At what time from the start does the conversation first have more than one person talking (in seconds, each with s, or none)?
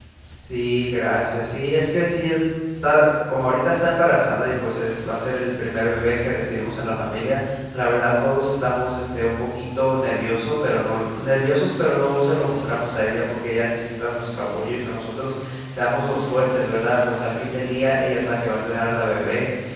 none